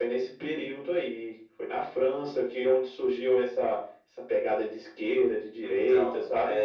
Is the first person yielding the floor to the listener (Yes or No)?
Yes